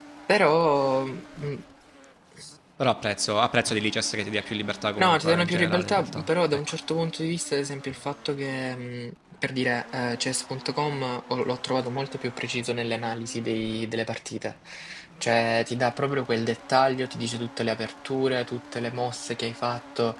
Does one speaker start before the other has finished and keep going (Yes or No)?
Yes